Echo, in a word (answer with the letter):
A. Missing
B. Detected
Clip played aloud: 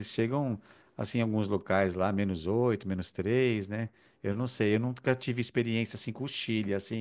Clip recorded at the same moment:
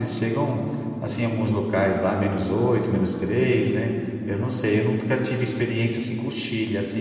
B